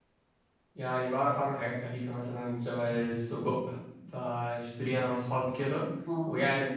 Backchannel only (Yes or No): Yes